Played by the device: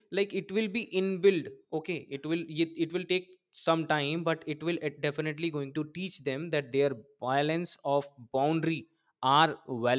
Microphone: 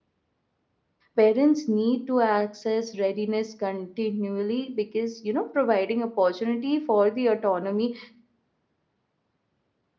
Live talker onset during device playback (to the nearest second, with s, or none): 1 s